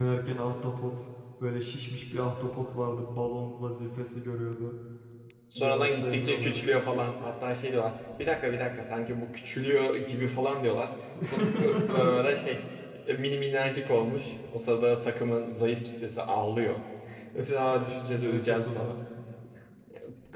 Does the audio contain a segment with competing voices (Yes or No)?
Yes